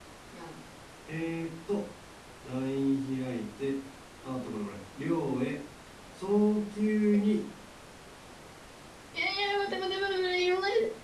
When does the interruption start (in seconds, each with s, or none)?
none